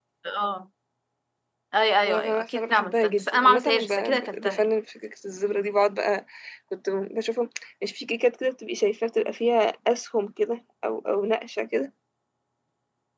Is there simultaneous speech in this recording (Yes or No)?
Yes